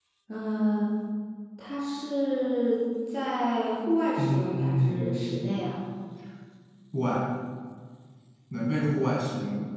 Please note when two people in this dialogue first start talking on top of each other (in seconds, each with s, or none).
4.2 s